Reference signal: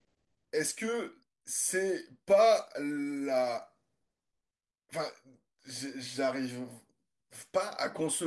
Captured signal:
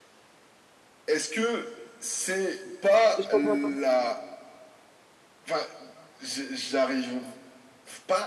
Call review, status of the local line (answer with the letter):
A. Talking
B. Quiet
A